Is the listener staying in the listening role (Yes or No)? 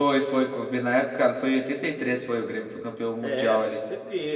No